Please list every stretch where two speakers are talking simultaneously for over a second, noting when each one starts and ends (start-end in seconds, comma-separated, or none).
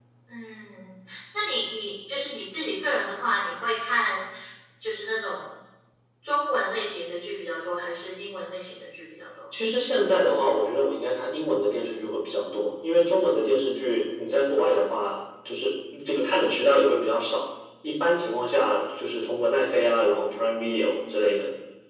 none